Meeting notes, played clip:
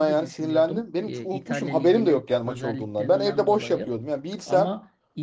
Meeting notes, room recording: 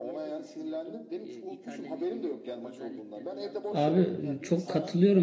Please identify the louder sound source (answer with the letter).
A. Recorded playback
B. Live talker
B